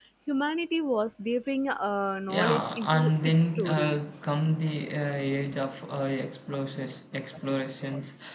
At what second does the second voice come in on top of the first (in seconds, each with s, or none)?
2.3 s